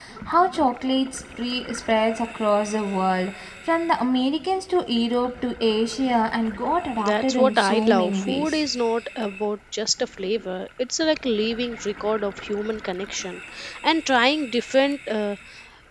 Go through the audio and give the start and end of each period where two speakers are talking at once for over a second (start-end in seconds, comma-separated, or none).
7.0-8.6